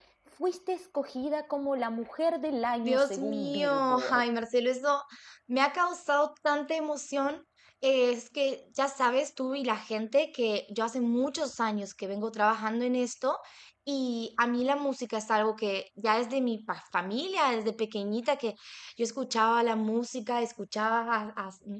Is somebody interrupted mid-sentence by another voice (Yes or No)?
Yes